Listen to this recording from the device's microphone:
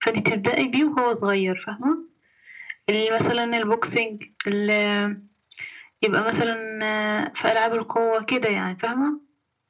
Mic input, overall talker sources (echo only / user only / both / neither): echo only